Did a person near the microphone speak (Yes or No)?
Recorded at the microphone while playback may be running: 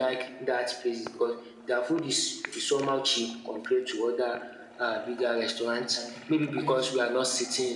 Yes